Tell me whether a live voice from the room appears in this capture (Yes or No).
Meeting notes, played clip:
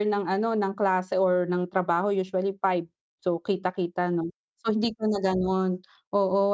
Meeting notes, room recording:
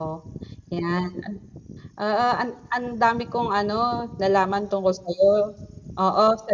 Yes